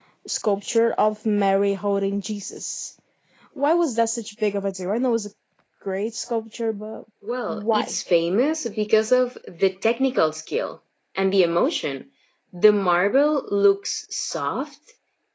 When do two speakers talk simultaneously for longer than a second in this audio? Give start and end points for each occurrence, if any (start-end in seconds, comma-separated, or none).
none